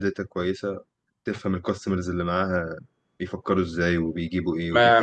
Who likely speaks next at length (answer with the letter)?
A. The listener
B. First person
A